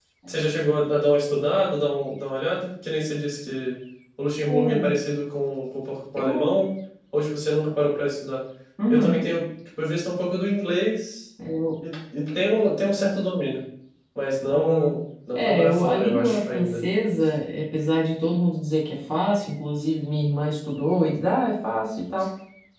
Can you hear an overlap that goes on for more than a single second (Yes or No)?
Yes